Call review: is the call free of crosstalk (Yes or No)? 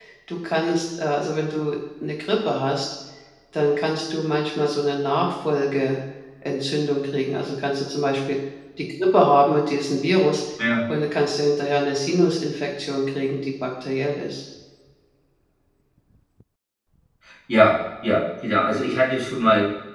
Yes